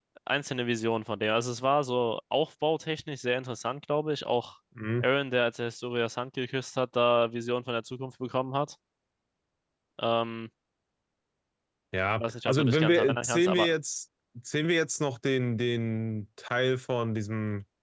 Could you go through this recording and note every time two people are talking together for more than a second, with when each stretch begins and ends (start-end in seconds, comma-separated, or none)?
12.2-13.7